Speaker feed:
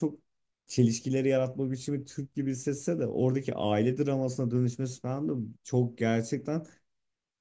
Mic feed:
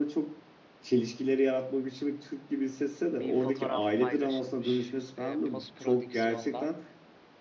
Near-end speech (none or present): present